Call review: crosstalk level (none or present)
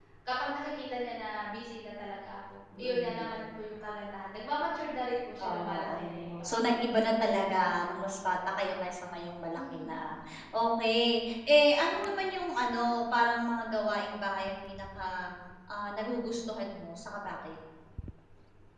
present